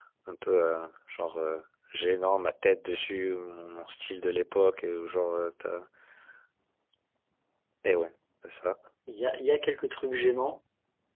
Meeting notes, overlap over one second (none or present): none